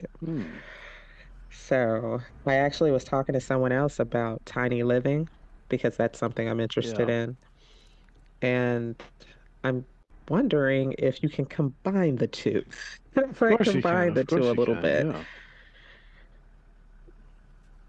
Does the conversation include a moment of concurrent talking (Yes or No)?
Yes